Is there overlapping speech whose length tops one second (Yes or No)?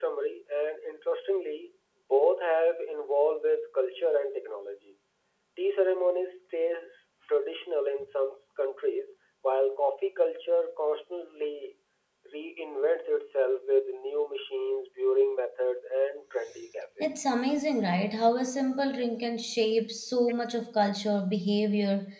No